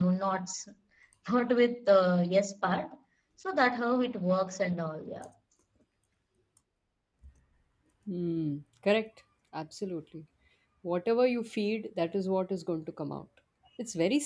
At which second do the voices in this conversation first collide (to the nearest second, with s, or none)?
none